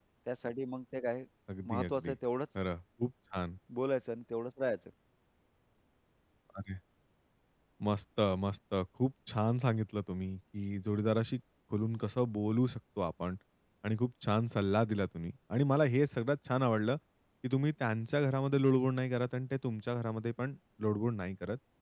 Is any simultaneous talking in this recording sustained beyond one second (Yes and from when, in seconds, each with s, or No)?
No